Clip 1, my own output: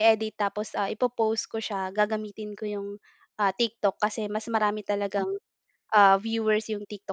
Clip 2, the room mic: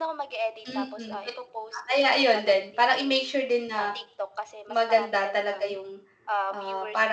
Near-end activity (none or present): present